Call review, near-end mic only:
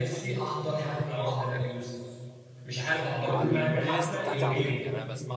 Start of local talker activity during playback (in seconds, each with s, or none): 3.3 s